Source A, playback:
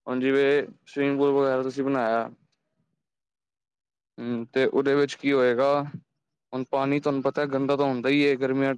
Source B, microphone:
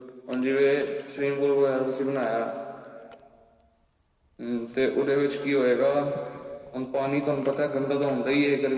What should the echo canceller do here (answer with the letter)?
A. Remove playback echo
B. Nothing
A